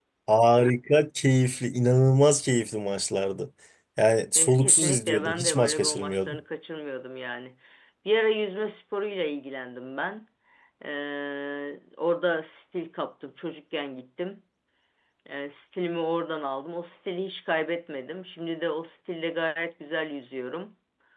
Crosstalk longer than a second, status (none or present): present